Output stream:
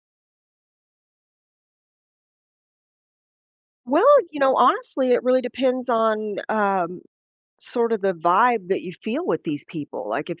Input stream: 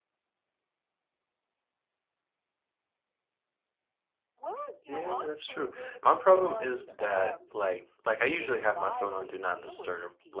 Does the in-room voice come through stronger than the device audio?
Yes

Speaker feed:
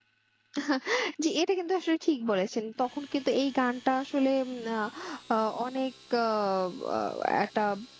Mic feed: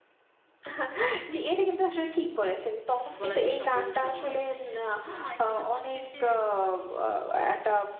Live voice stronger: No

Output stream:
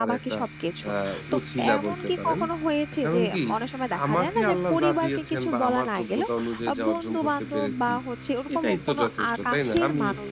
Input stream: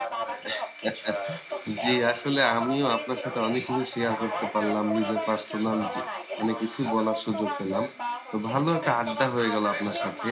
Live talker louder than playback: Yes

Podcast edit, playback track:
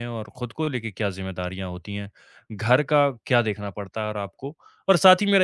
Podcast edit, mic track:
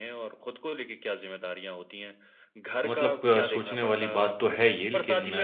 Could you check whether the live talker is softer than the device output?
No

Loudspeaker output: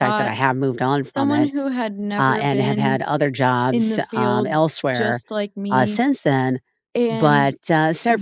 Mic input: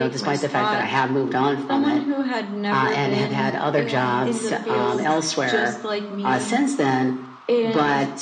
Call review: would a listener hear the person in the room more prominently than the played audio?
No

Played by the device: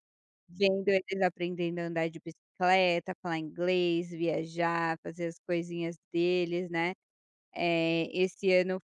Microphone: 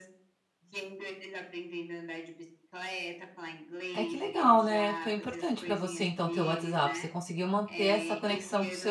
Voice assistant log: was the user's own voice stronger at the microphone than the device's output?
Yes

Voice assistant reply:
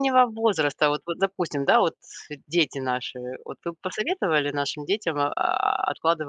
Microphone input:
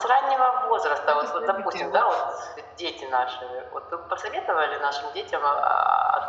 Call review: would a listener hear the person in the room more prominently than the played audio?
No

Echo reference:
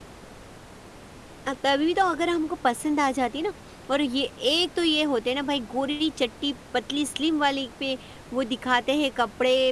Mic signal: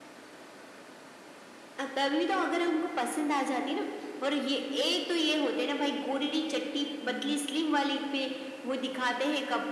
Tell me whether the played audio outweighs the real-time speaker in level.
Yes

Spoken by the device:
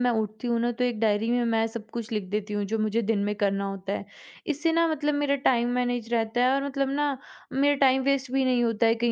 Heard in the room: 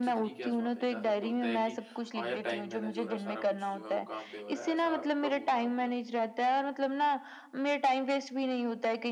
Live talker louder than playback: No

